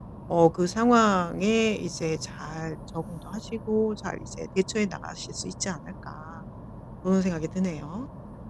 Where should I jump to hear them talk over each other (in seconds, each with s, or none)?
none